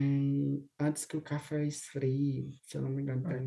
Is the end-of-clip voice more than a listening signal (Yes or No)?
Yes